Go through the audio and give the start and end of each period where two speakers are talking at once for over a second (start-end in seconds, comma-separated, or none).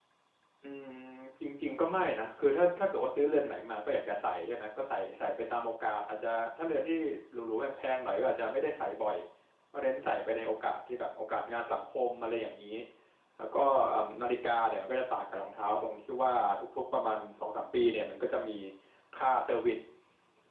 none